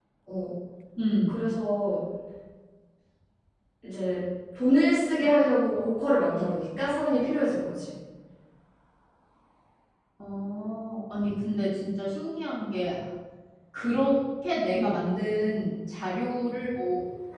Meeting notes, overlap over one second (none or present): none